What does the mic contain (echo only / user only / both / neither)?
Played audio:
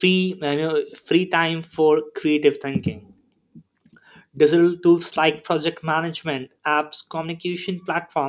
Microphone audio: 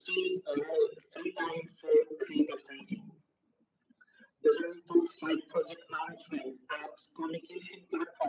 echo only